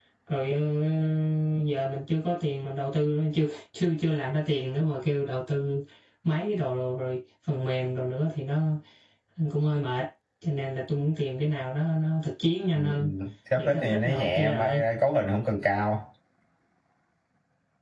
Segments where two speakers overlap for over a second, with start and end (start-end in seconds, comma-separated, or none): 13.6-14.8